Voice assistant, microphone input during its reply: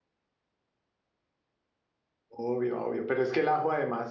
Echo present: No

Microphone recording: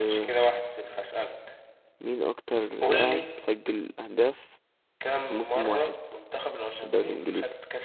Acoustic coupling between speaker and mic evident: Yes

